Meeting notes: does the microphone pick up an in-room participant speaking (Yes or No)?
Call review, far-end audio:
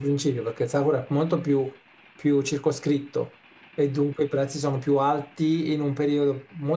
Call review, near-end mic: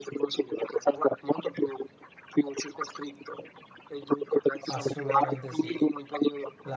Yes